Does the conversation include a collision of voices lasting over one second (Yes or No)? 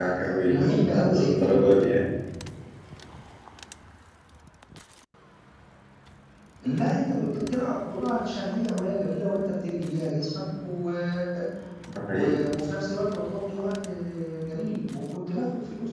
Yes